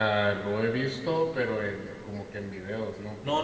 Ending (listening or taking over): taking over